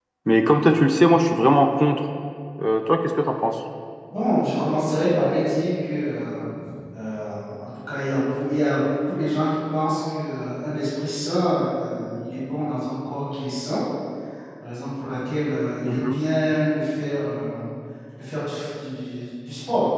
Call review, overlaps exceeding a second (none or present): none